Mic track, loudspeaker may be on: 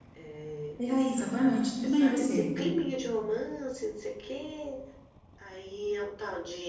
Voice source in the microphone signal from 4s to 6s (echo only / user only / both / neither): echo only